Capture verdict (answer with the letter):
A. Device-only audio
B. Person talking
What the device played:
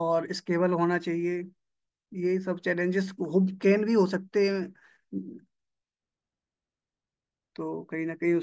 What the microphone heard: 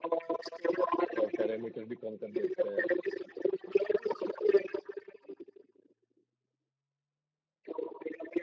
B